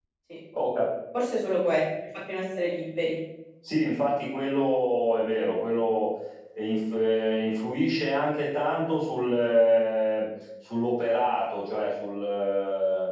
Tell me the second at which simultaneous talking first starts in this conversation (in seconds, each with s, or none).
none